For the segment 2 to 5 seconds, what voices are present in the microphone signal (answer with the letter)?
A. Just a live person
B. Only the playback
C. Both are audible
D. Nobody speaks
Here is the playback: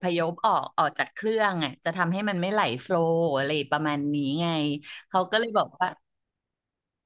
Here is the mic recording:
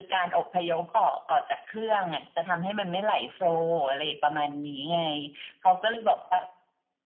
B